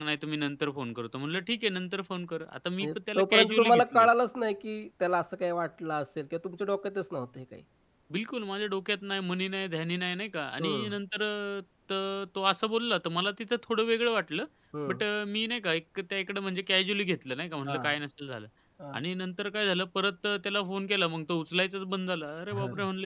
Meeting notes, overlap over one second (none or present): present